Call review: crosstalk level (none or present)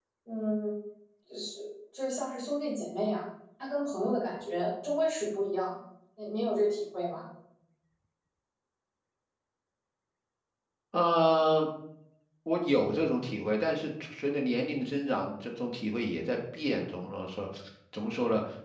none